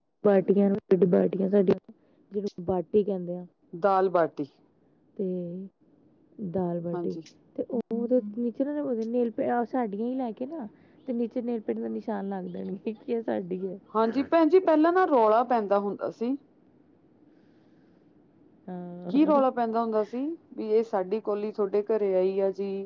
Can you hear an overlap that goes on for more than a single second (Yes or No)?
No